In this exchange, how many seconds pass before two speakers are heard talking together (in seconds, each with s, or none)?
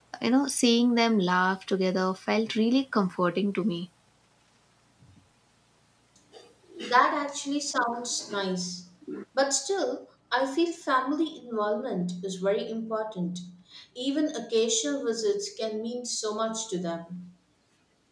none